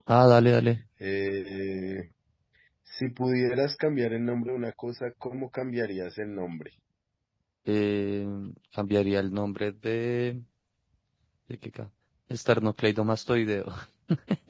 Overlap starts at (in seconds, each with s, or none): none